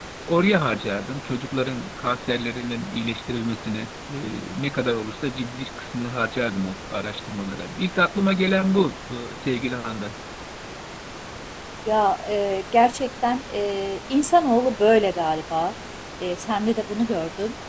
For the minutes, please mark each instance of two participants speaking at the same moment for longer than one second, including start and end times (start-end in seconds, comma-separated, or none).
none